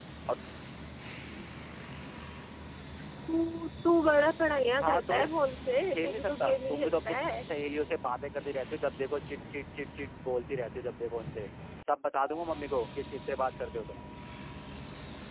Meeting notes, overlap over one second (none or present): present